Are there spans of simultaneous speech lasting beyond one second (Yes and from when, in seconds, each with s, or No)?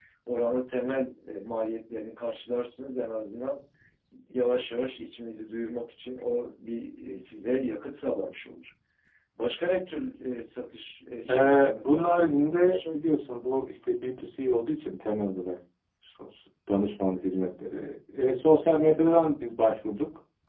Yes, from 11.3 s